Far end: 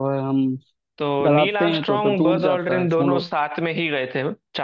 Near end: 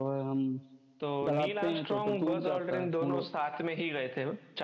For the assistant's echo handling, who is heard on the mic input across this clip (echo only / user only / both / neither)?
echo only